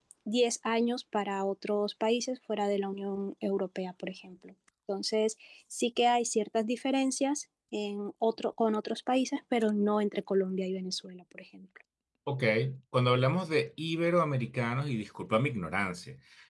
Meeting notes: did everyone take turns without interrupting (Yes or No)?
Yes